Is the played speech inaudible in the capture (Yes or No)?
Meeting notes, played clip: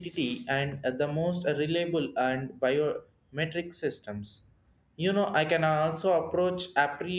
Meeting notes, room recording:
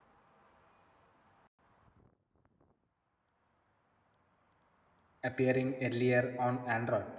Yes